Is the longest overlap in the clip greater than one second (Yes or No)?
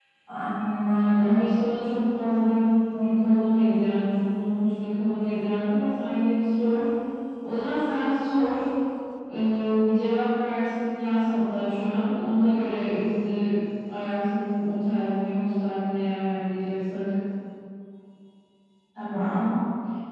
No